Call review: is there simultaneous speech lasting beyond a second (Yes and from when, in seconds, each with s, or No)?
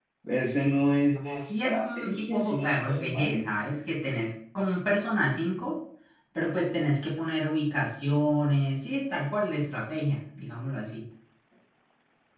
Yes, from 1.4 s